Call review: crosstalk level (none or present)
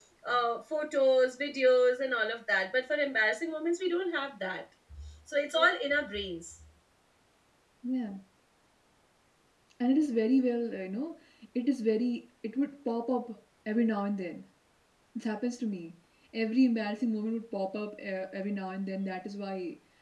none